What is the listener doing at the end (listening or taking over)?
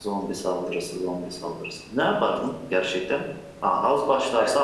listening